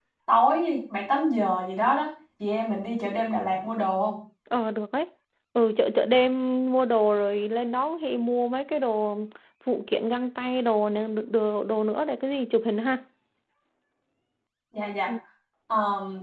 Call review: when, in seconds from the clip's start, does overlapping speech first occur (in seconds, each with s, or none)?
none